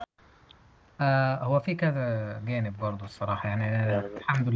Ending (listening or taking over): listening